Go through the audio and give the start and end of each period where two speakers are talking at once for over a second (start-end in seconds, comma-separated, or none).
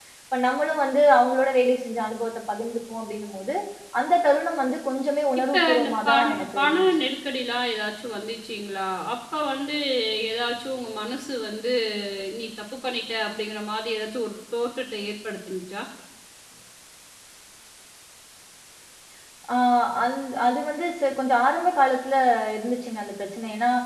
5.5-6.9